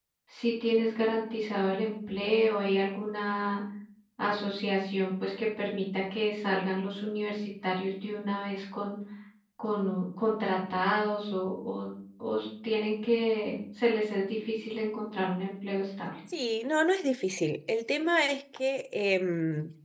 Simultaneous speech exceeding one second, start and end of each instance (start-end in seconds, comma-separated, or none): none